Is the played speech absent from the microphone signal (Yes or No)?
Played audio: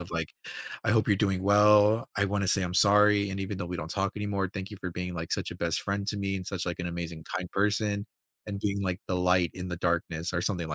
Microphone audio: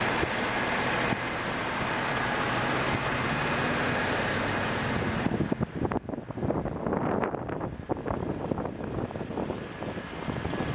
Yes